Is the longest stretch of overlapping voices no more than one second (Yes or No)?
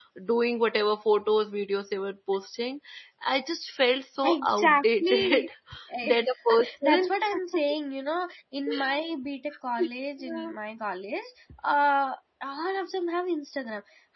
No